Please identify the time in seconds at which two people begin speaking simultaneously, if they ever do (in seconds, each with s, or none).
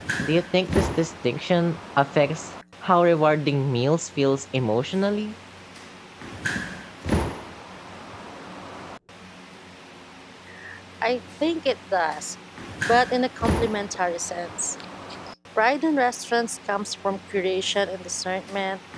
none